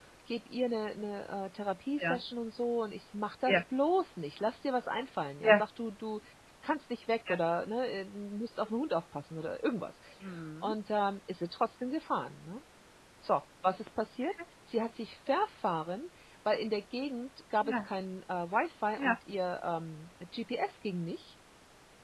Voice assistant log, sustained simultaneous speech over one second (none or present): none